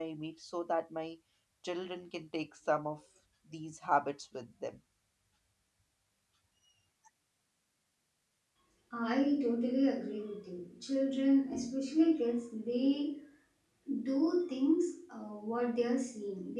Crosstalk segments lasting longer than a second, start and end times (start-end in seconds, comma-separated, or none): none